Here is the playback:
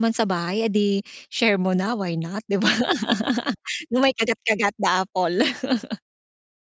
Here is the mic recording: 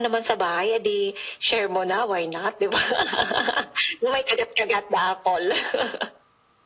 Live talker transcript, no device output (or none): none